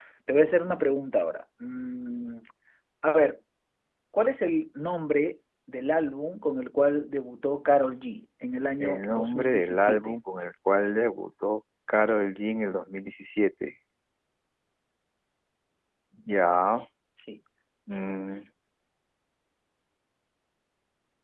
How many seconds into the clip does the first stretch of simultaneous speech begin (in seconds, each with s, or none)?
8.8 s